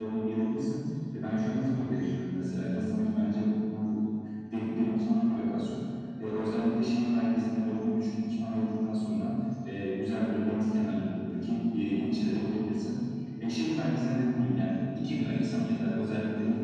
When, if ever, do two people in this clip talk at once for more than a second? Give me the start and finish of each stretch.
none

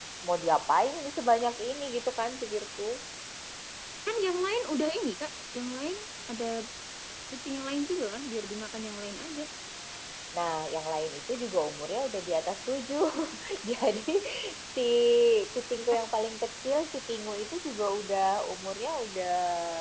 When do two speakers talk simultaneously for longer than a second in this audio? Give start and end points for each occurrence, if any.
none

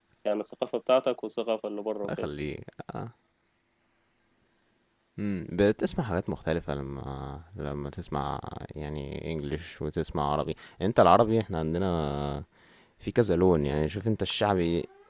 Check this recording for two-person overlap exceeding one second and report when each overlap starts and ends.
none

